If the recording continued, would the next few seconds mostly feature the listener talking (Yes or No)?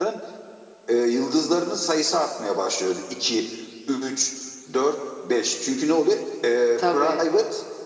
No